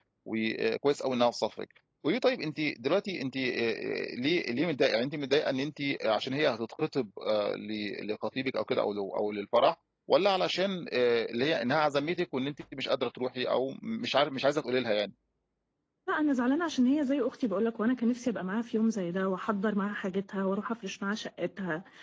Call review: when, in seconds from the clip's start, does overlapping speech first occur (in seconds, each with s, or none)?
none